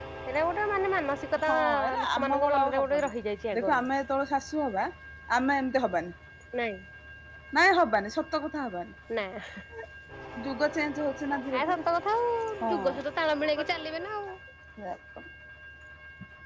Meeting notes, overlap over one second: present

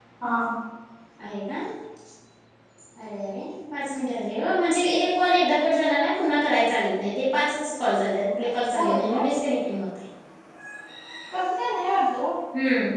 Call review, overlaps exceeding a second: none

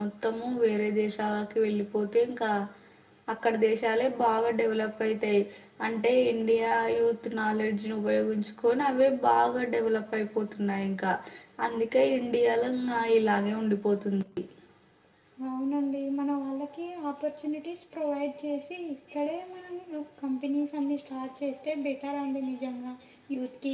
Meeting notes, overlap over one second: none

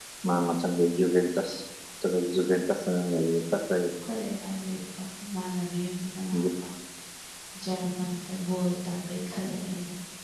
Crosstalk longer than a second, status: none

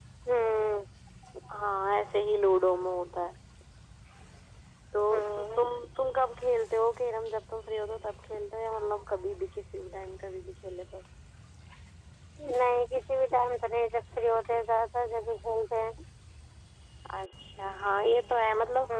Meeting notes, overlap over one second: none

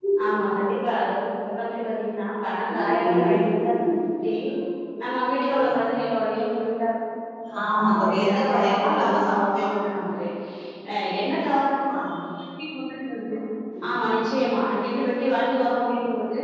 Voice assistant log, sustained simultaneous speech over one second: present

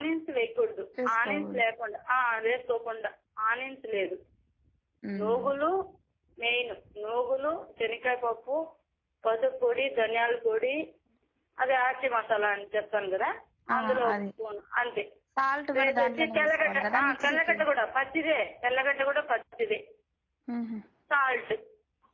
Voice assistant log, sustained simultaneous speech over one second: present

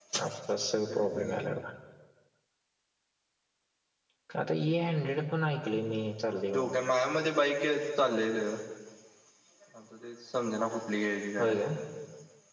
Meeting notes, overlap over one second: none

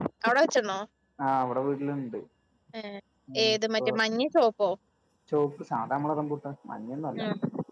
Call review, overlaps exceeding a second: none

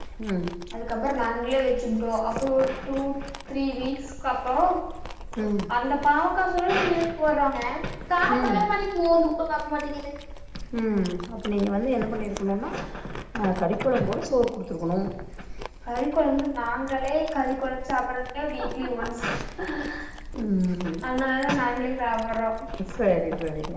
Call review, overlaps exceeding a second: none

